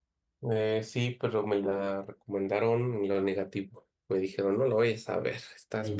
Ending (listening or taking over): taking over